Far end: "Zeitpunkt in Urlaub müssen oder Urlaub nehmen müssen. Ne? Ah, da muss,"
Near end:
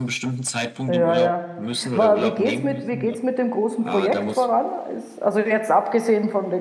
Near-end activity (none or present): present